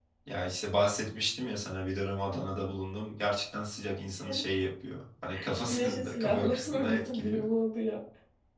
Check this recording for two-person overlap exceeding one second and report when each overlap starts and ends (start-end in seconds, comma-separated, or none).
5.7-7.4